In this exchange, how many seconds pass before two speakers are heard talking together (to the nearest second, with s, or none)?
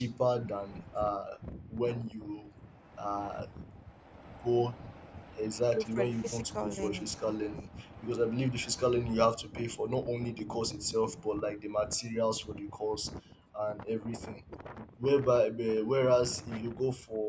6 s